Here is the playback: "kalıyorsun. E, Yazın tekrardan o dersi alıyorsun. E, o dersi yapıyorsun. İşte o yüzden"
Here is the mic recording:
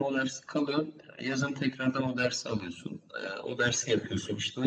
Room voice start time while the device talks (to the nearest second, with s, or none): none